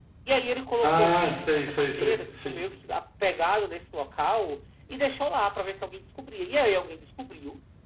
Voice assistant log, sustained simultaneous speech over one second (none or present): present